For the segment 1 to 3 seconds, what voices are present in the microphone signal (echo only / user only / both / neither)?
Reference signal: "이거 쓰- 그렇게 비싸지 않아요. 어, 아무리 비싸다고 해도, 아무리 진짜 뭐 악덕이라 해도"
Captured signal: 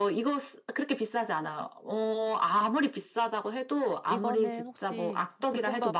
echo only